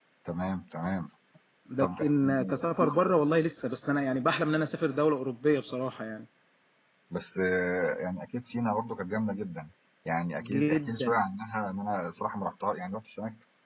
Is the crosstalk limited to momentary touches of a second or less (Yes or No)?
No